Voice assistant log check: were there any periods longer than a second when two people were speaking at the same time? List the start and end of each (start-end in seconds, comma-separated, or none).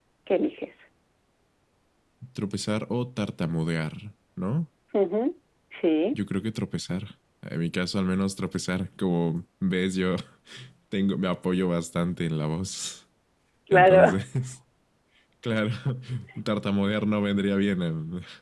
none